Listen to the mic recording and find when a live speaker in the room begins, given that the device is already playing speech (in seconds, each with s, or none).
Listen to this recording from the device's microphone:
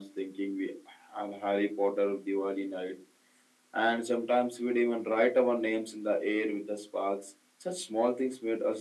none